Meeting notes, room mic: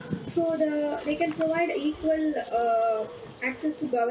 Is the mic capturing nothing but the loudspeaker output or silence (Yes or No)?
No